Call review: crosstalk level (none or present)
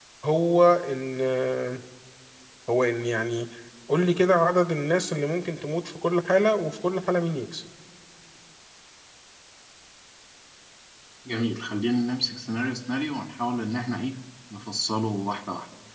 none